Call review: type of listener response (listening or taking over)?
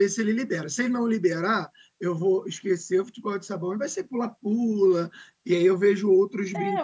taking over